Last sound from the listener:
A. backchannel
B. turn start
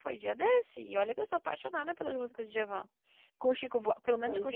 A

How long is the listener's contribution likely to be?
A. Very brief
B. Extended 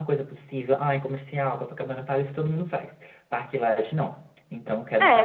B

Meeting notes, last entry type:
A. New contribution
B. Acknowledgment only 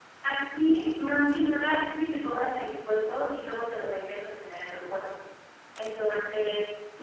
B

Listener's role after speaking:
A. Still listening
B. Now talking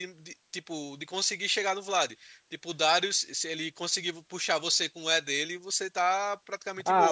B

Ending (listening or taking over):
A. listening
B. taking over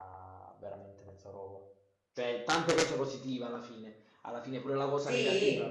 A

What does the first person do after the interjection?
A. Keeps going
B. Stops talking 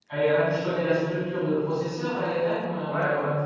B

